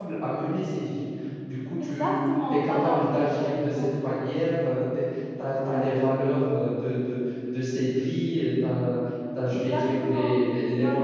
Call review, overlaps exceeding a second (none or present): present